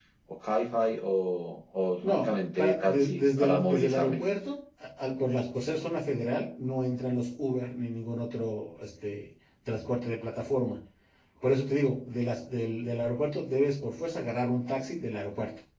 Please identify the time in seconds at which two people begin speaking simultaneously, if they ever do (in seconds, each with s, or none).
2.0 s